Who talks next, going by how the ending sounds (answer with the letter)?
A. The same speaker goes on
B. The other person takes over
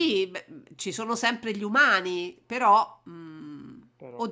A